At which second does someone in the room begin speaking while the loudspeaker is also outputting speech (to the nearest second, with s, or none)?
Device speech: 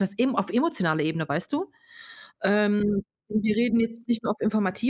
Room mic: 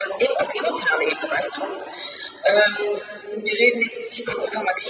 none